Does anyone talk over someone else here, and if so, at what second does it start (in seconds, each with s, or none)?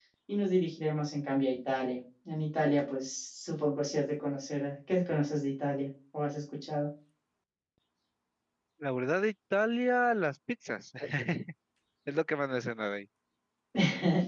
none